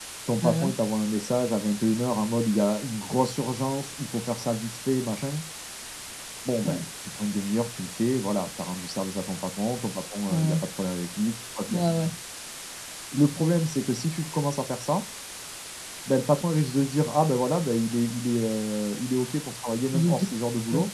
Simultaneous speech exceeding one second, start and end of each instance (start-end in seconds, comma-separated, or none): none